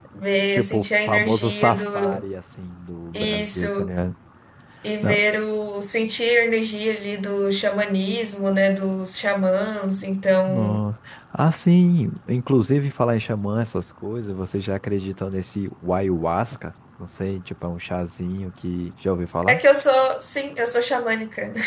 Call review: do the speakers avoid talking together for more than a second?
No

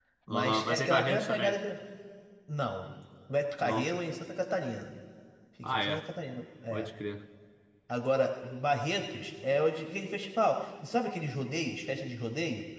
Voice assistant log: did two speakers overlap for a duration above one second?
Yes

